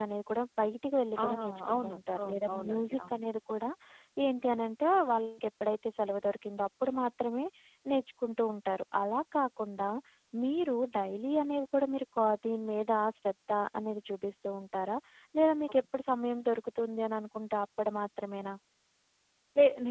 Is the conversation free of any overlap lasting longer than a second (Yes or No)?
No